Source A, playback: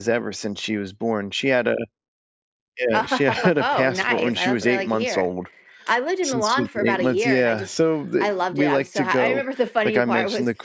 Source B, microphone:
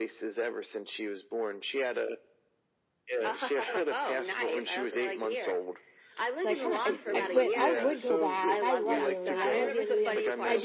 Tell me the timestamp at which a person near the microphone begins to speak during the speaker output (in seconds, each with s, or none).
6.4 s